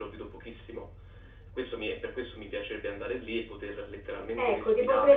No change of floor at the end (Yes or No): No